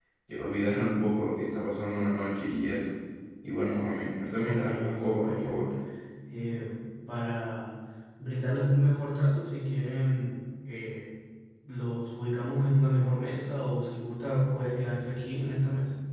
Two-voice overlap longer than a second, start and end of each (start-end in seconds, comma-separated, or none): 4.4-5.6